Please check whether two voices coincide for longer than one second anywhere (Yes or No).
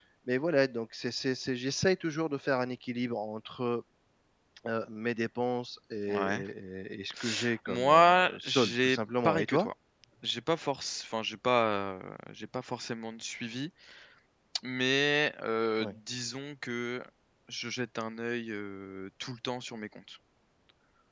Yes